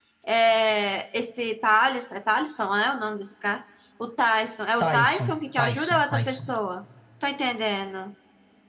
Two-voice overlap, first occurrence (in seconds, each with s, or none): 4.8 s